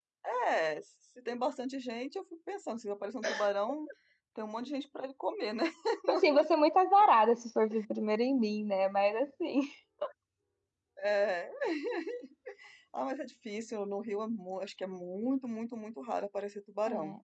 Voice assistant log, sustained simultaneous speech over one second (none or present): none